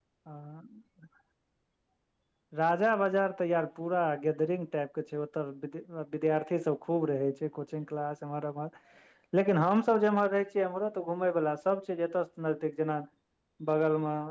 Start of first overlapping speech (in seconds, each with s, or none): none